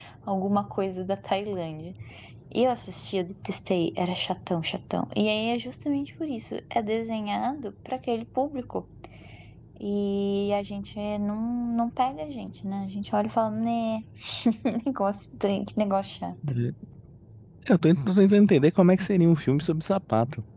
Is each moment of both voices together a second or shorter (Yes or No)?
Yes